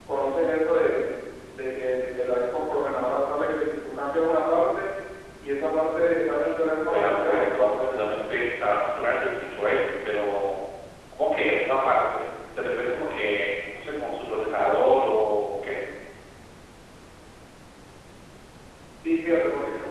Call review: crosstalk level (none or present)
present